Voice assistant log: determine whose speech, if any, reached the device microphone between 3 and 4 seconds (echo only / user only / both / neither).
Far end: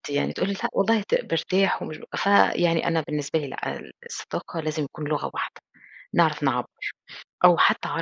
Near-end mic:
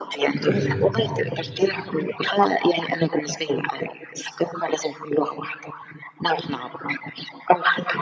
echo only